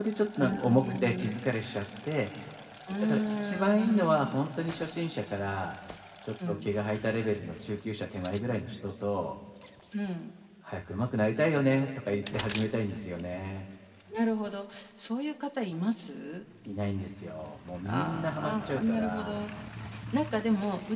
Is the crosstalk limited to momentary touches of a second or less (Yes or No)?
No